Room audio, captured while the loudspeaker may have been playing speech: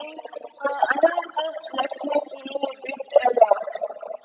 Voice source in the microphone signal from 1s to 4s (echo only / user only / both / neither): echo only